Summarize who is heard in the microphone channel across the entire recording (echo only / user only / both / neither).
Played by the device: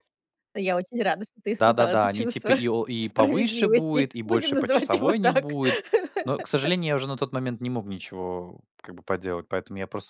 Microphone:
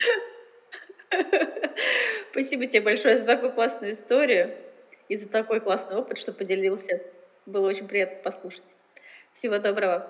user only